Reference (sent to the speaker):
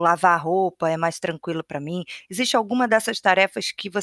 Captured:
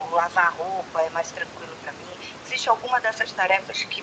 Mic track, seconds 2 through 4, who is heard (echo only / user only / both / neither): echo only